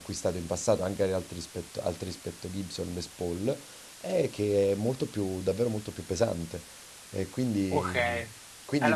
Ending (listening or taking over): taking over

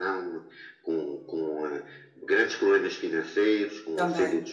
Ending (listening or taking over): listening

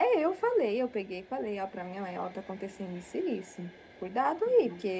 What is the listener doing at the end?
listening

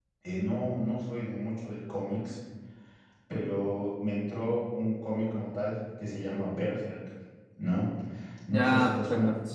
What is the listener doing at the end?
taking over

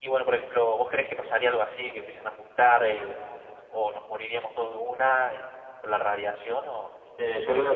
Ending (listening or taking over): taking over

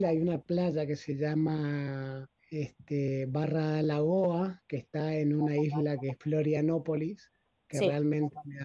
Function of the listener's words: listening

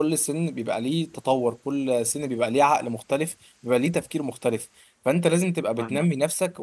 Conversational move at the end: listening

